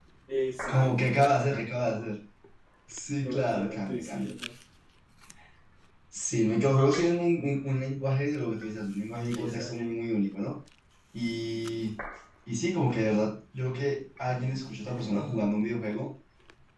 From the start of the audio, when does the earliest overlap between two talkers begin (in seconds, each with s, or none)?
0.7 s